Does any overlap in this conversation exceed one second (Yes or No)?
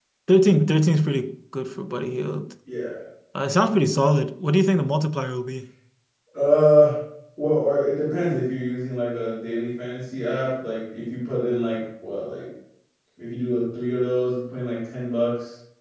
No